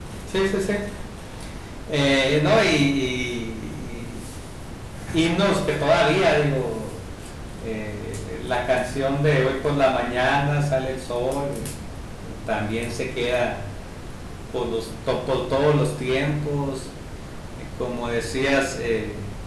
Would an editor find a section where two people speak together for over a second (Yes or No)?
No